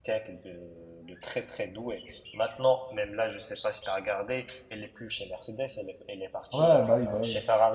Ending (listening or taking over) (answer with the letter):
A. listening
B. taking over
B